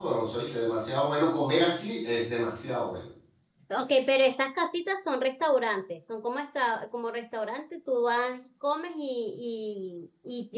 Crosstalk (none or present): none